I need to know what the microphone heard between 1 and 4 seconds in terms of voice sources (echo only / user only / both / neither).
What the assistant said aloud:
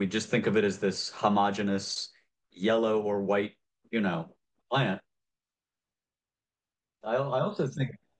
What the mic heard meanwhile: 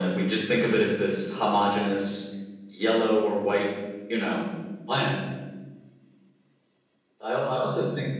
echo only